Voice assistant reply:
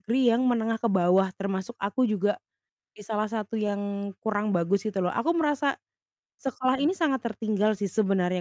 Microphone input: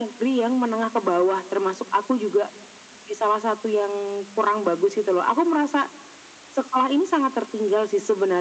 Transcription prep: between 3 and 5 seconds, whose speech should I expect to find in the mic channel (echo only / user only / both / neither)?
echo only